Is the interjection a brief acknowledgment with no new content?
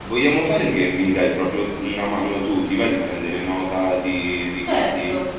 No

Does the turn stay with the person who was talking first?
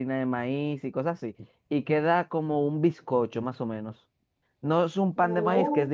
Yes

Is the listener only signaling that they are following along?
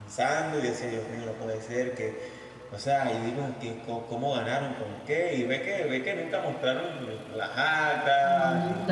No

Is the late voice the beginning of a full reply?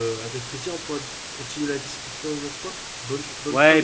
Yes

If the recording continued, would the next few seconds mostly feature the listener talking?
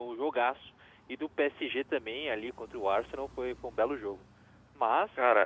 No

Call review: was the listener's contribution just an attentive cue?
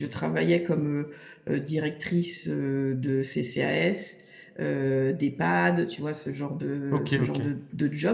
Yes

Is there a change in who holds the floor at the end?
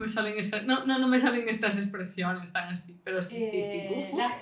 Yes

